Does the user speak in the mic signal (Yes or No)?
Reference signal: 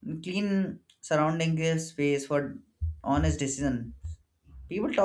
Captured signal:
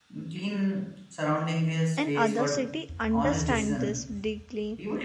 Yes